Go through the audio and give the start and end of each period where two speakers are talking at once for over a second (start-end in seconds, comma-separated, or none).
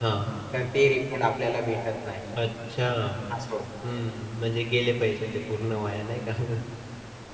none